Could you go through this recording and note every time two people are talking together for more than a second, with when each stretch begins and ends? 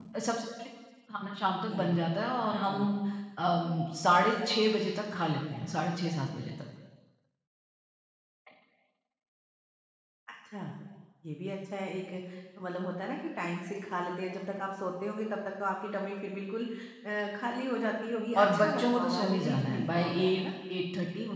18.4-20.4

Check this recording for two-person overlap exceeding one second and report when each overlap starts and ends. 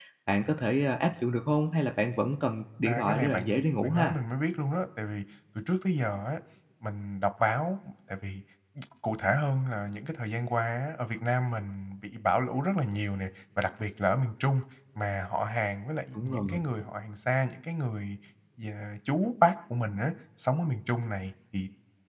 2.9-4.2

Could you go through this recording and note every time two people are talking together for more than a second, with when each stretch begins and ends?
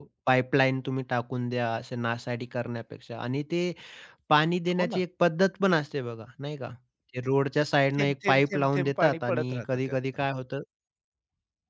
8.0-10.0

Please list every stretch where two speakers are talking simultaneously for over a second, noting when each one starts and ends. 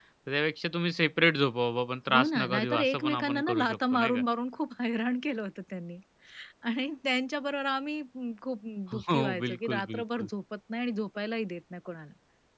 2.1-4.2, 8.9-10.3

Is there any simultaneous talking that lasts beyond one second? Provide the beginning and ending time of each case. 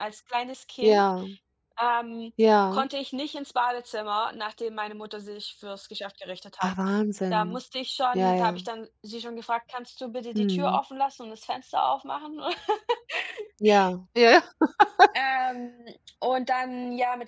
none

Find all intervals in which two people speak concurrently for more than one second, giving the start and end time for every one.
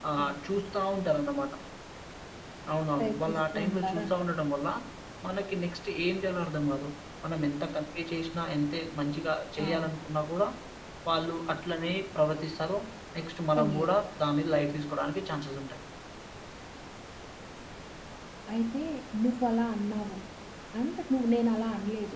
3.0-4.3

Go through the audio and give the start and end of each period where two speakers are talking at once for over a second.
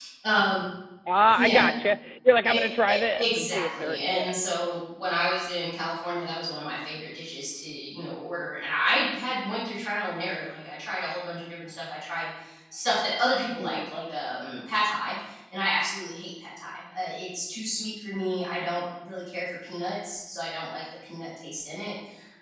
2.5-4.3

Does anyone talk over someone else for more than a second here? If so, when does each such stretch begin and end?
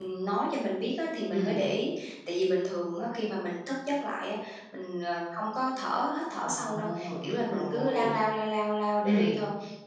6.4-8.1

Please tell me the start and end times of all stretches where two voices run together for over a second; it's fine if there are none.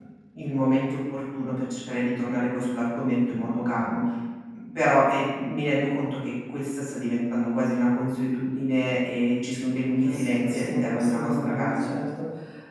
10.0-11.9

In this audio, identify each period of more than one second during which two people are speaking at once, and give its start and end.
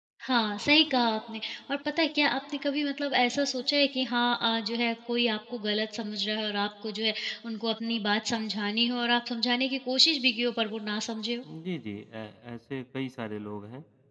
none

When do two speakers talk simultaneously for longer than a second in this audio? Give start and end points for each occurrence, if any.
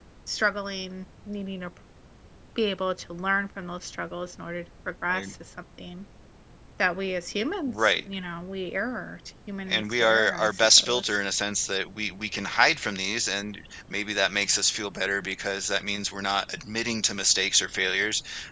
9.7-11.0

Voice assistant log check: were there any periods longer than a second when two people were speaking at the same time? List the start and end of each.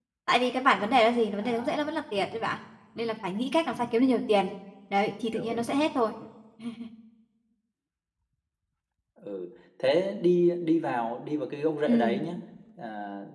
none

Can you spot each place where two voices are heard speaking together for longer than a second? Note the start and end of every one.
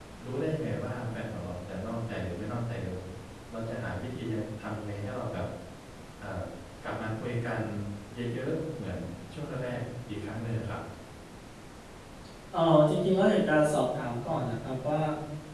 none

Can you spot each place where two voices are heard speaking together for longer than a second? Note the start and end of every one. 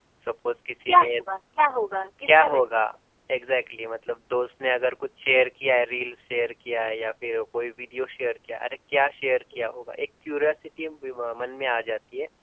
none

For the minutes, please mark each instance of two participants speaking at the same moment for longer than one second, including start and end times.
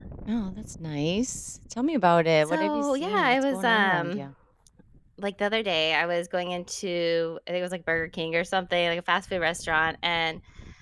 2.5-4.3

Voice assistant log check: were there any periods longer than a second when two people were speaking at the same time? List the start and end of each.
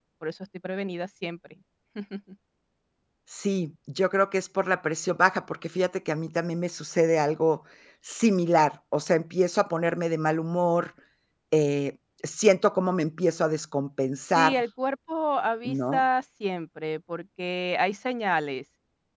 none

